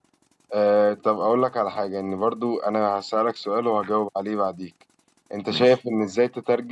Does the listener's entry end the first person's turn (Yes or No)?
No